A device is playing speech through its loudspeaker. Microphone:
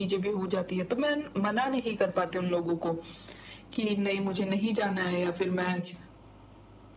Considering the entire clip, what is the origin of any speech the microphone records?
echo only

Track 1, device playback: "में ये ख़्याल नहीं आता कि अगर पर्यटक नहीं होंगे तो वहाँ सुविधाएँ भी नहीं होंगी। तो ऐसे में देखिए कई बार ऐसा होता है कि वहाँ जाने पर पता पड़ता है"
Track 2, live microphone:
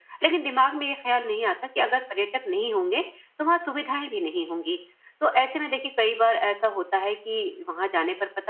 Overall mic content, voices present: echo only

